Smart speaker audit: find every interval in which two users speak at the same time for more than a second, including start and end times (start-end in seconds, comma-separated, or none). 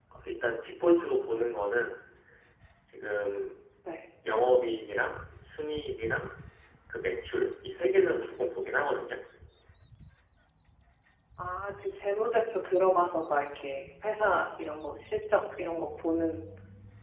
none